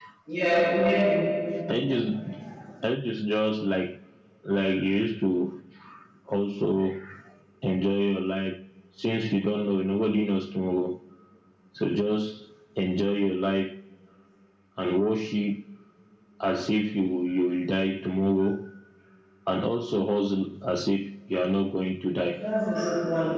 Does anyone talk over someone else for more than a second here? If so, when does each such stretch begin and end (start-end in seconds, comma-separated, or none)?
none